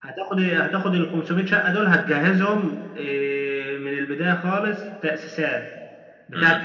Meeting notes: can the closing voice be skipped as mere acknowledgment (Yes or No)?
Yes